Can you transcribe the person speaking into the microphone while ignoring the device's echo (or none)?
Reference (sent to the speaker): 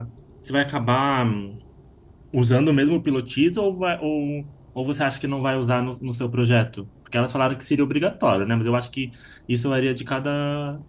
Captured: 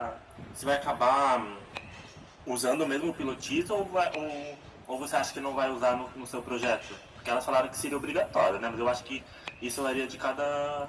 none